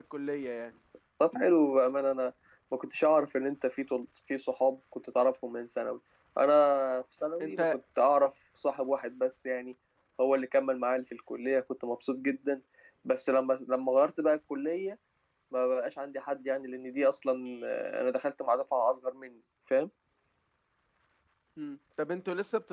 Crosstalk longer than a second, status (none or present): none